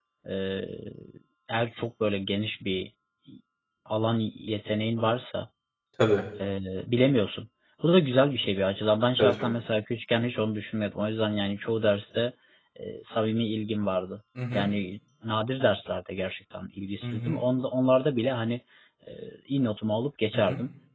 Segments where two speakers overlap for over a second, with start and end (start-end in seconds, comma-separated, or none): none